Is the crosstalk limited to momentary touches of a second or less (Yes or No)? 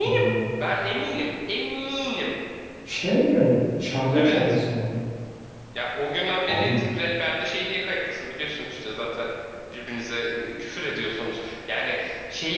Yes